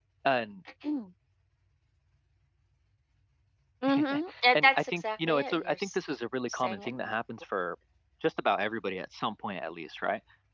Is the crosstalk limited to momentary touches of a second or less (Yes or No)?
No